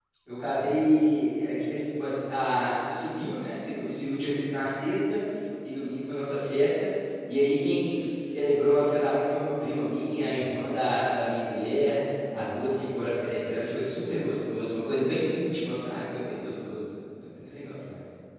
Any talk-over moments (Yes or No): No